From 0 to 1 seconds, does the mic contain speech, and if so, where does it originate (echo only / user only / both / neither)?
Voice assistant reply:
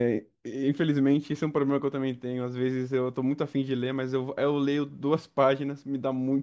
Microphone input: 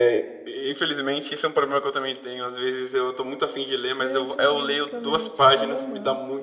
echo only